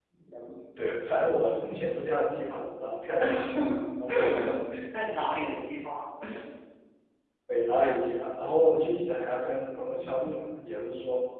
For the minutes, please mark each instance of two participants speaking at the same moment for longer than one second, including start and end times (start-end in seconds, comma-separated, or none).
none